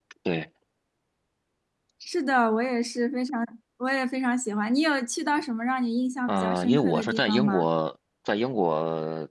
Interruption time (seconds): 6 s

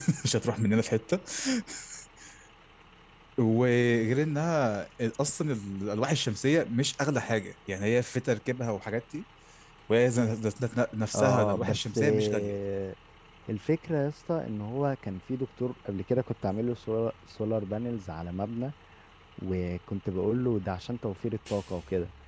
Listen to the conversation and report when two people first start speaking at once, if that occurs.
11 s

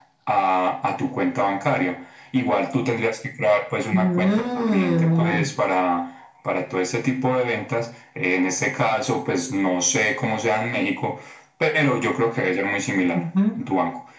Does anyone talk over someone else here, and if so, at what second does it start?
4 s

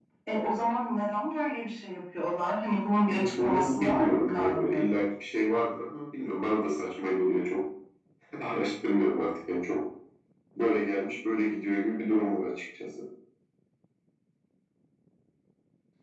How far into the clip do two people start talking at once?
3 s

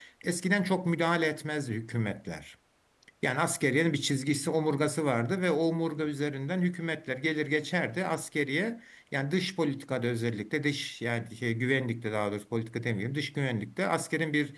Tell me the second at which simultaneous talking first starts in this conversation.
none

